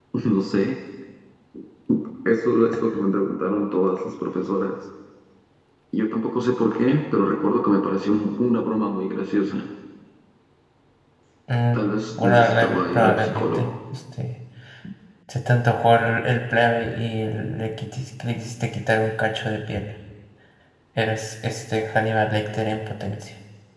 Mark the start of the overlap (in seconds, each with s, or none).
12.2 s